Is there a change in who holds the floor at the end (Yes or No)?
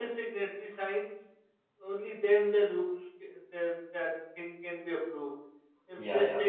No